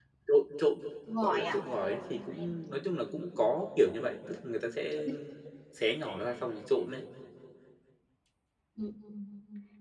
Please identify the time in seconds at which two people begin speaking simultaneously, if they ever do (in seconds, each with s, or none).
1.2 s